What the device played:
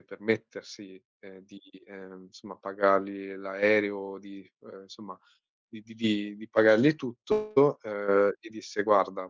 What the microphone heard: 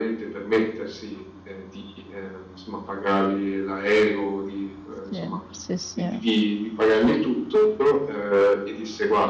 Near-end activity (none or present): present